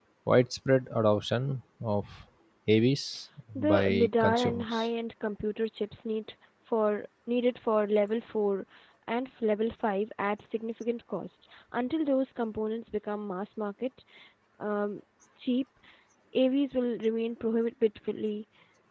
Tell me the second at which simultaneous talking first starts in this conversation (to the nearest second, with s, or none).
4 s